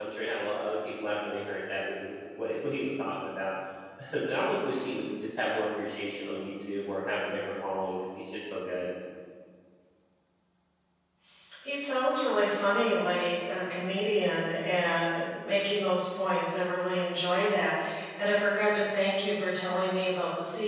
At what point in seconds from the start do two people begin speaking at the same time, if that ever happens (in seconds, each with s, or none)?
none